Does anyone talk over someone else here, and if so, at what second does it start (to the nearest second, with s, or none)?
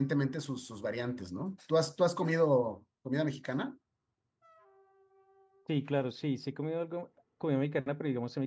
none